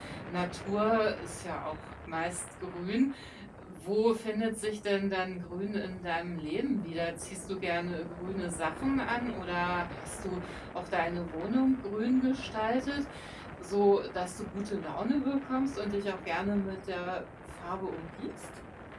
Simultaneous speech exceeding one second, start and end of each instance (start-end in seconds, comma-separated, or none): none